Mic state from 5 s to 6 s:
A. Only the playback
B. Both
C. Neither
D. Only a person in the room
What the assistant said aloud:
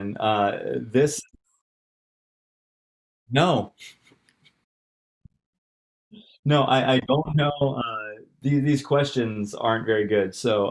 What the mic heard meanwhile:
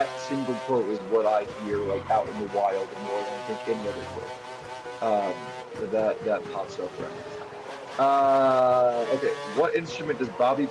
D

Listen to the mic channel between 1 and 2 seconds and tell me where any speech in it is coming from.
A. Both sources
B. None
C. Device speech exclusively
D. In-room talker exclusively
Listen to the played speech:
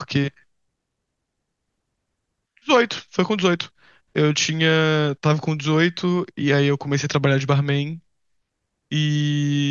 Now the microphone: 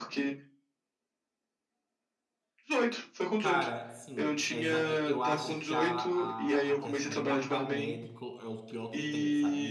B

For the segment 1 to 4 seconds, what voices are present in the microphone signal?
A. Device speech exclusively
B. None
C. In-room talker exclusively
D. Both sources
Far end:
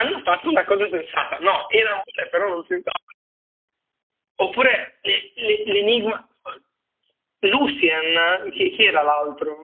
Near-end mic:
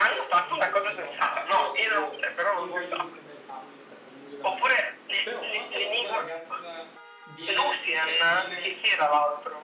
D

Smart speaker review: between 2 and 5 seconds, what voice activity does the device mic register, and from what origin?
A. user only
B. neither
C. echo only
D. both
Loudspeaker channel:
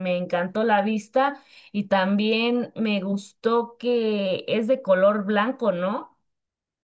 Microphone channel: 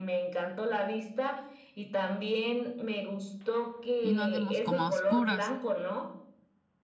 D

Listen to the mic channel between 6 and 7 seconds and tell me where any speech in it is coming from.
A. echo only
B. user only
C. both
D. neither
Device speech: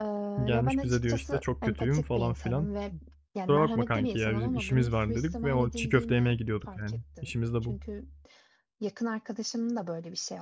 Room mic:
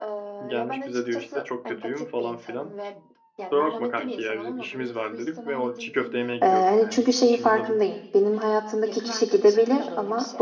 C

